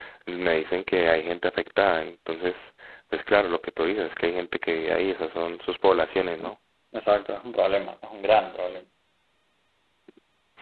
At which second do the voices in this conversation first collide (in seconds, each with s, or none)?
none